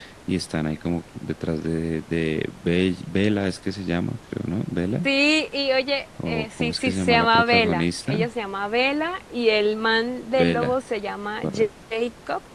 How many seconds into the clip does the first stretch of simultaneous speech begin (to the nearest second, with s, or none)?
6 s